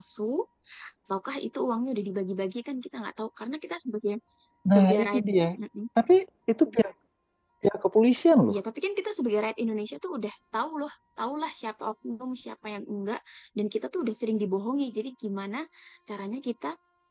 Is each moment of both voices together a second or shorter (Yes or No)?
Yes